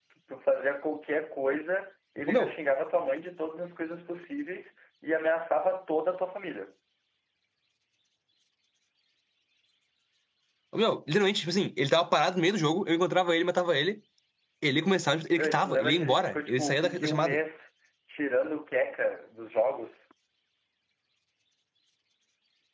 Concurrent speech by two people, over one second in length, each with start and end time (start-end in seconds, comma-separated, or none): 15.3-17.4